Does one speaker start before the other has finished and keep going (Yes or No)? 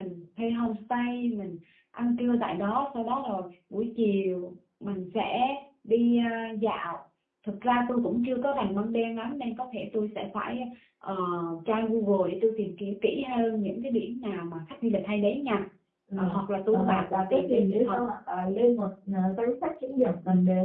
Yes